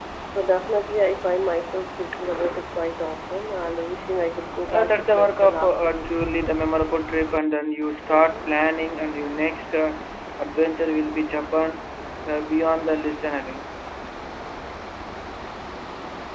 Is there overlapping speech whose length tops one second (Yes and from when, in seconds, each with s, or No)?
Yes, from 4.7 s